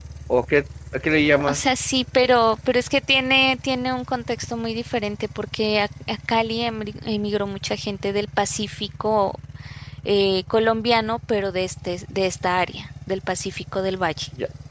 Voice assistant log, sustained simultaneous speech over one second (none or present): none